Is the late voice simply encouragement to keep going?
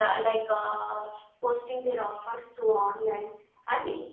Yes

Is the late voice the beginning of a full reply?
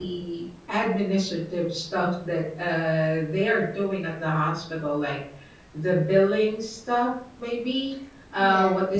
No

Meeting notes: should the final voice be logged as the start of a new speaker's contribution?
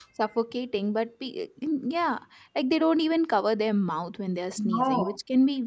No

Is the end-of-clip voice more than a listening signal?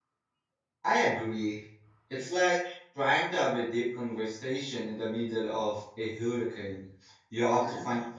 No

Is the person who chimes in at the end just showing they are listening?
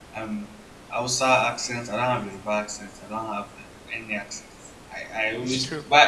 Yes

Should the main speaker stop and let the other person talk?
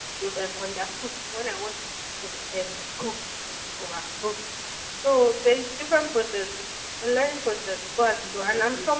No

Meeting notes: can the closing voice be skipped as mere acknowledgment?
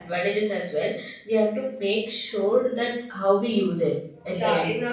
No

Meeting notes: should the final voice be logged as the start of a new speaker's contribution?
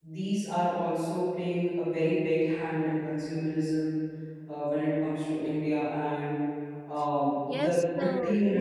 Yes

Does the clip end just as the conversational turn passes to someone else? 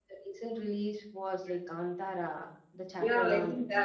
Yes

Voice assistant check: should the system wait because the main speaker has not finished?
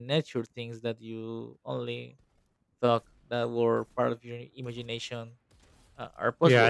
No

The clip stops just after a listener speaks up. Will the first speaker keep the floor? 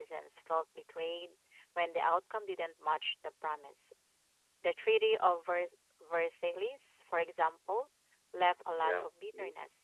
Yes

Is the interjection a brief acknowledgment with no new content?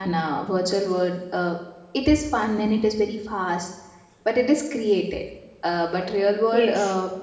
Yes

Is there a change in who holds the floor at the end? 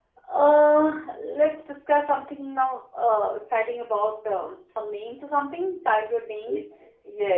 Yes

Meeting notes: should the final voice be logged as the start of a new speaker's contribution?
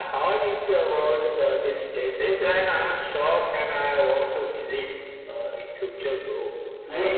Yes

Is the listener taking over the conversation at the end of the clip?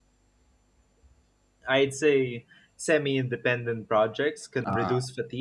No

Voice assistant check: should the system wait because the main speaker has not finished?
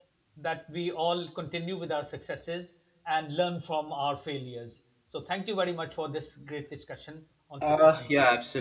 No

